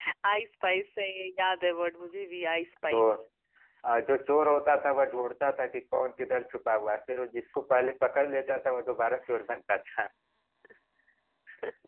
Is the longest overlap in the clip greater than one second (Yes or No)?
No